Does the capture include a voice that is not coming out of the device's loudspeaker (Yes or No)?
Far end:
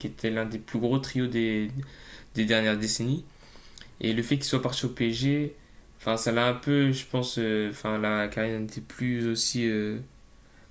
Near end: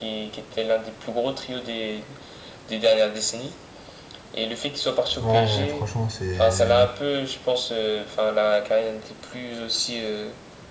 Yes